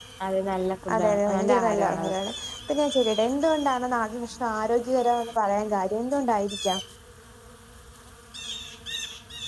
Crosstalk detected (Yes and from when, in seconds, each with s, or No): Yes, from 0.9 s